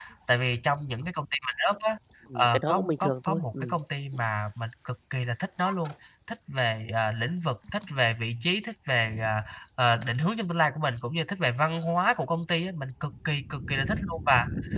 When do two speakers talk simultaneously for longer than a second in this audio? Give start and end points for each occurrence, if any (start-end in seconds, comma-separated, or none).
2.4-3.8